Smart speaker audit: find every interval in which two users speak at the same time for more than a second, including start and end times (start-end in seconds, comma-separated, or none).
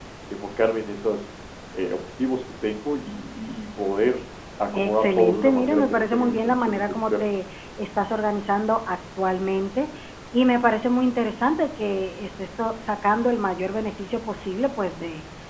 4.7-7.4